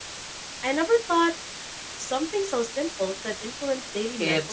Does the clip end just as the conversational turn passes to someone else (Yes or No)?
Yes